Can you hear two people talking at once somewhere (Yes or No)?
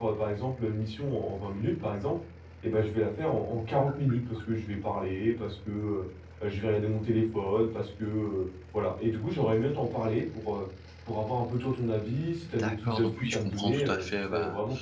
Yes